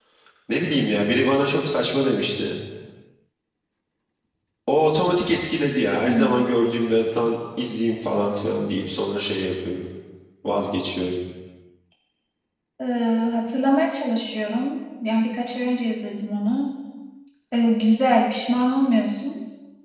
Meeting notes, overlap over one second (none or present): none